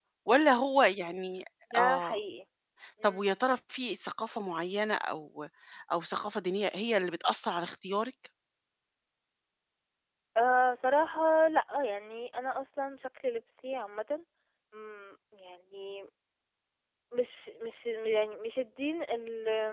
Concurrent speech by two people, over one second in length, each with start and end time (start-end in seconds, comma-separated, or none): none